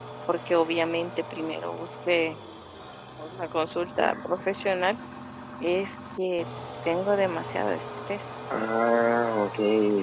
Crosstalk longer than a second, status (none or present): none